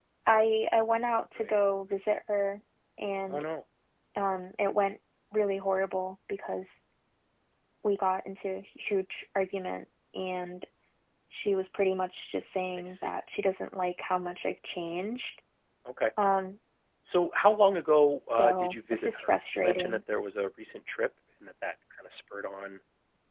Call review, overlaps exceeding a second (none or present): present